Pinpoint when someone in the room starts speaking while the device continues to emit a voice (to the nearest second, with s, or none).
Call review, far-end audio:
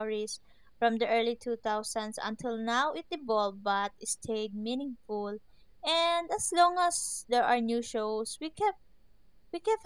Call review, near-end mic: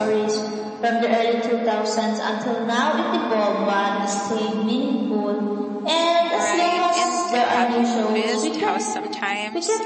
6 s